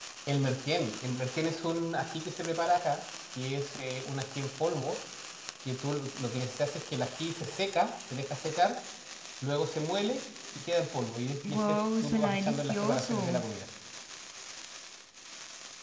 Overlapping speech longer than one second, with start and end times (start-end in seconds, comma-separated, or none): 11.4-13.4